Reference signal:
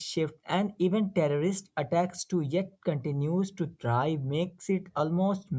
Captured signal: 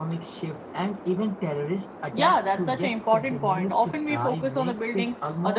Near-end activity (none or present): present